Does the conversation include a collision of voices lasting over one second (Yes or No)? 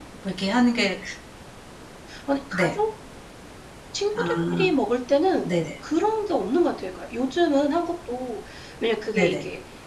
No